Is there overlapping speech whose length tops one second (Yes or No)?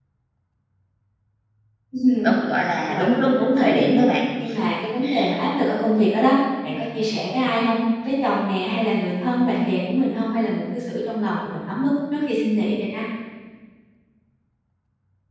Yes